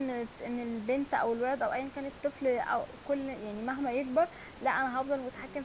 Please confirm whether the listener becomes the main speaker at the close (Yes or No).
No